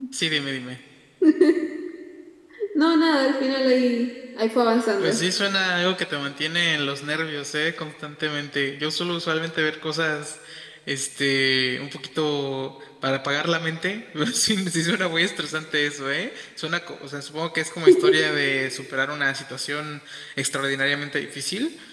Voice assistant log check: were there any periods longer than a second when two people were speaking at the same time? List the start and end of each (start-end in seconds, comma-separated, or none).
none